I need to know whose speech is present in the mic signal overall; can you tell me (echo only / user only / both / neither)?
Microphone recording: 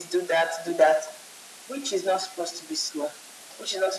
echo only